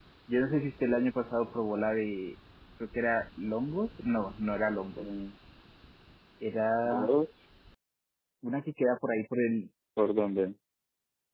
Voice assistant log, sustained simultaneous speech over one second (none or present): none